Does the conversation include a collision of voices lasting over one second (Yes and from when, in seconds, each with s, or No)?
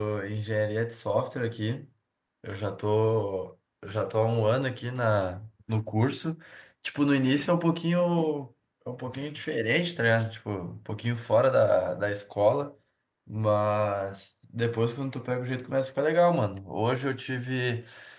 No